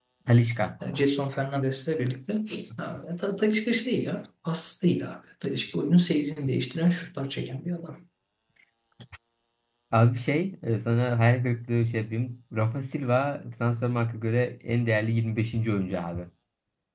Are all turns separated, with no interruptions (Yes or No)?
Yes